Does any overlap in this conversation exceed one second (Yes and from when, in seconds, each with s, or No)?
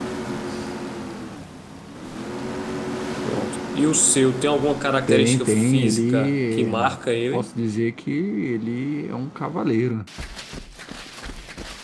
Yes, from 5.1 s